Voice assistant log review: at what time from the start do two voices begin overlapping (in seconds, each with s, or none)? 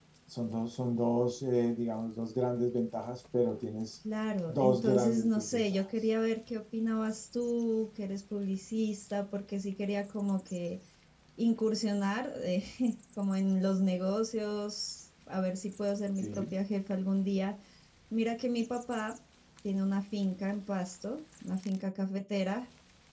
4.5 s